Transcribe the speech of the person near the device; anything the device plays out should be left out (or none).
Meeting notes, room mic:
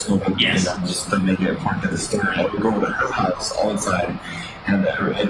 Yes.